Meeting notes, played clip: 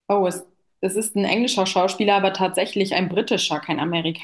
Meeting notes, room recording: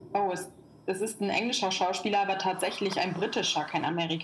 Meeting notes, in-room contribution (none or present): none